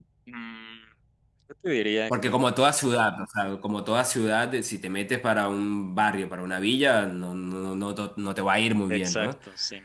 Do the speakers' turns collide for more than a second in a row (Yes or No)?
No